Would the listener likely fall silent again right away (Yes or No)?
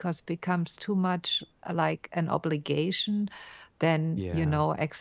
Yes